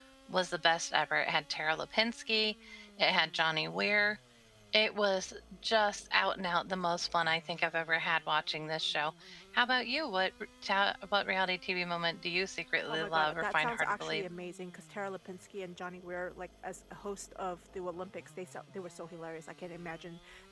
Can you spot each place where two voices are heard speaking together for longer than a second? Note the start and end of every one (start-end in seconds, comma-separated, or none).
12.9-14.2